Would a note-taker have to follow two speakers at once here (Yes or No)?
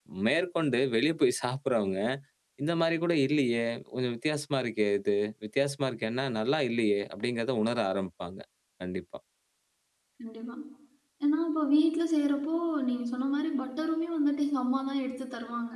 No